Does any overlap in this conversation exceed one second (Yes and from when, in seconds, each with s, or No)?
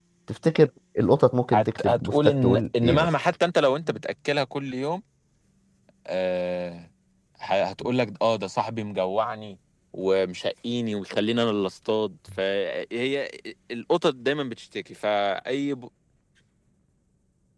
Yes, from 1.5 s